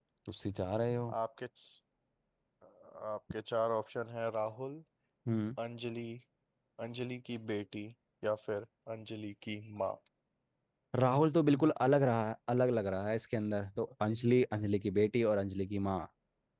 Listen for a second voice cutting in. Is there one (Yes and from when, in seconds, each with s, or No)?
No